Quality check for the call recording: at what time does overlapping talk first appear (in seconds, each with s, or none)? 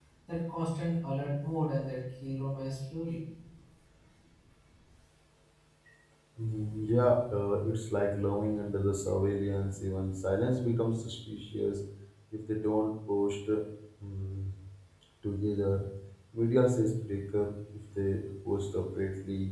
none